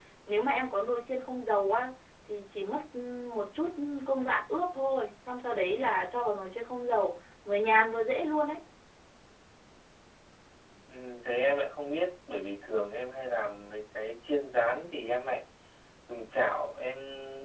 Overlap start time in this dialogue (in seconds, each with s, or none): none